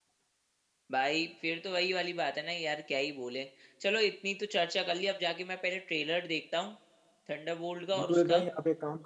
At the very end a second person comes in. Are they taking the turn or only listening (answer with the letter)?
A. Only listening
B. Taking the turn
B